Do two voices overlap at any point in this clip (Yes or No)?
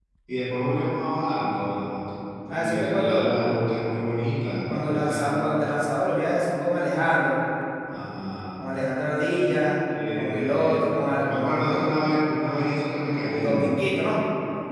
Yes